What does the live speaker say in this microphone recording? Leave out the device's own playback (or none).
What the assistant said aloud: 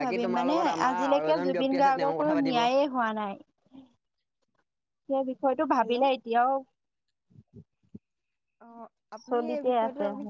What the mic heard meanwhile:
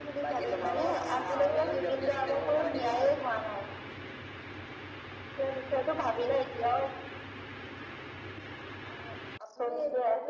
none